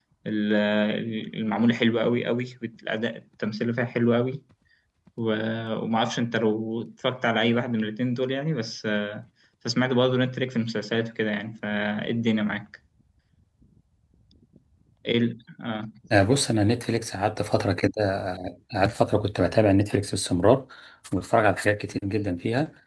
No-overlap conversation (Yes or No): Yes